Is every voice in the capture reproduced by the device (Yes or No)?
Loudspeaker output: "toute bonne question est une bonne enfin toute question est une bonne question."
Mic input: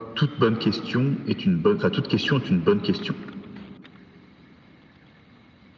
Yes